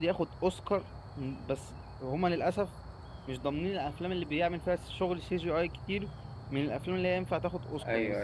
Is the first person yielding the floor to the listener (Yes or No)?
Yes